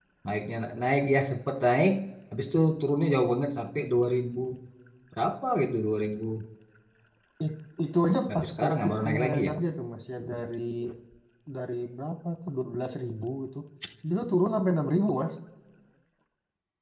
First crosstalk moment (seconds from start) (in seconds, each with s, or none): 8.3 s